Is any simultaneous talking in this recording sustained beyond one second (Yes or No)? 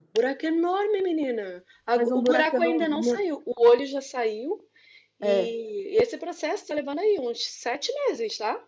Yes